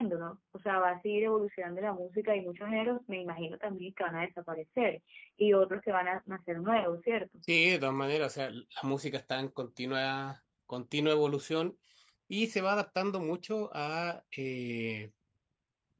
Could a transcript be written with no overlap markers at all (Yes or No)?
Yes